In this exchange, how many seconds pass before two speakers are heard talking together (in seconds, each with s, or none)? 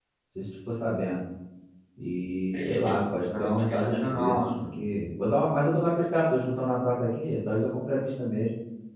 2.5 s